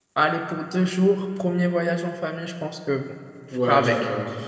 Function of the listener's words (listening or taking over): taking over